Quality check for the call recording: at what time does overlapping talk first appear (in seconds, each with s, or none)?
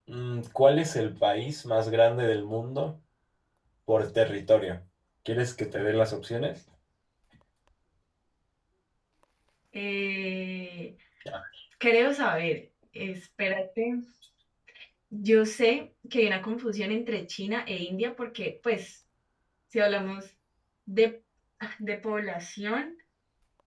none